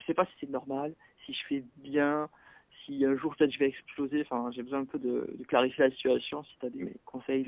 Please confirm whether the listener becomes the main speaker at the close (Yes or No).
Yes